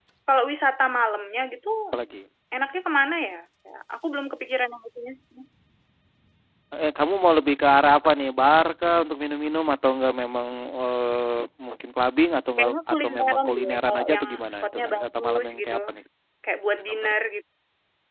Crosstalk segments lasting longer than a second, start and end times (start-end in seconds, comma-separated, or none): 12.6-15.7